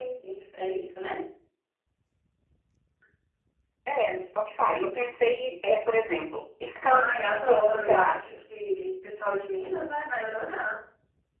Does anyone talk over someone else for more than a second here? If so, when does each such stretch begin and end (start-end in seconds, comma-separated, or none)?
6.9-8.2